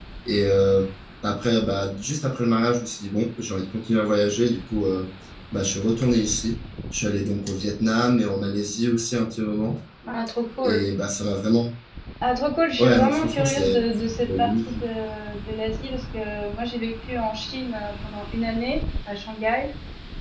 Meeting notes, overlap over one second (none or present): present